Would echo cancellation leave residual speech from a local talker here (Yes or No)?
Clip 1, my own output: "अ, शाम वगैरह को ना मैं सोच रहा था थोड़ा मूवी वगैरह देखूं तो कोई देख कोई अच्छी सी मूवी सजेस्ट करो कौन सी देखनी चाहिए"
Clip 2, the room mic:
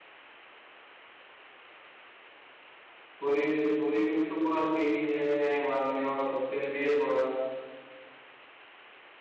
Yes